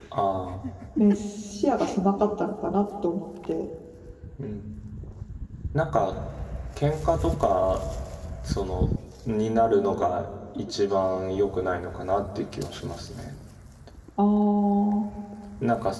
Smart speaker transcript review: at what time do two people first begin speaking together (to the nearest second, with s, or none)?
none